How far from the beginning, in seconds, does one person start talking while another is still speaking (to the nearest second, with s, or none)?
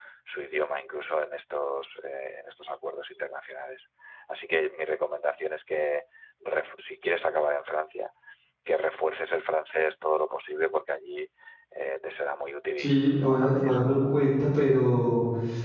13 s